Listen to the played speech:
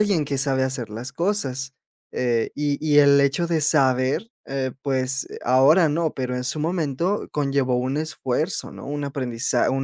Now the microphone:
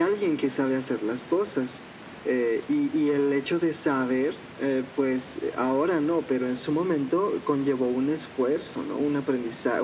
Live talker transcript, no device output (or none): none